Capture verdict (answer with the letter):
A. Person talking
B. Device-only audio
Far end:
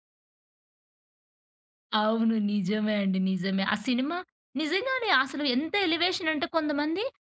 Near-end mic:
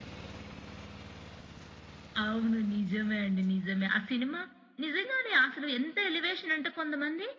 B